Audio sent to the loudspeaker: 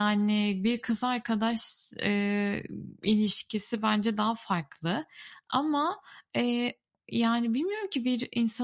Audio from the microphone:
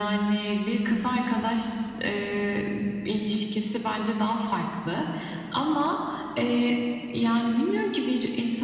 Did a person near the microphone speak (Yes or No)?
No